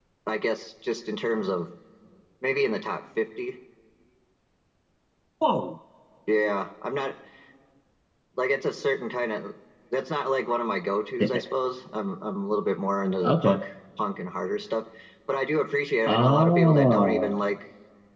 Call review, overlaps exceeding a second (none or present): present